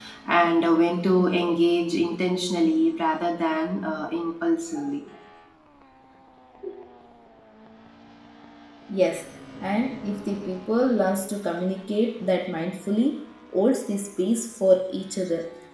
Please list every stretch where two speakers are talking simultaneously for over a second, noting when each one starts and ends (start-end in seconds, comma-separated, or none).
none